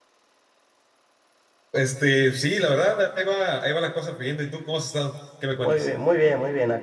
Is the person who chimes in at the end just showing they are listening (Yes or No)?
No